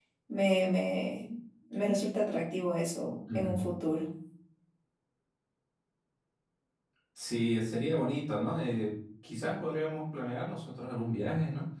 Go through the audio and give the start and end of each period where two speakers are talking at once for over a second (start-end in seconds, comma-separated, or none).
none